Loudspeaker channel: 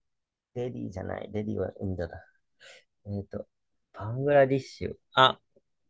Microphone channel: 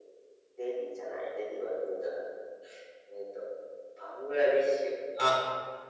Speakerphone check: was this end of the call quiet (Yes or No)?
Yes